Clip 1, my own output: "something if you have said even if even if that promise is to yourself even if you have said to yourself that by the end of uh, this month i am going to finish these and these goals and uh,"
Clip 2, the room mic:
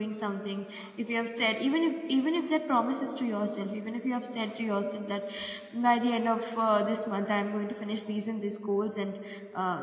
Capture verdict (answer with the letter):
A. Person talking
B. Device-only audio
B